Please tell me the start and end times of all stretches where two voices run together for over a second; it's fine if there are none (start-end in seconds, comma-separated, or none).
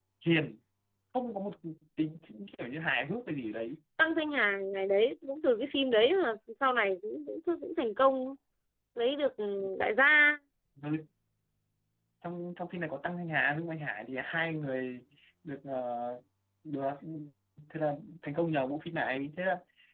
none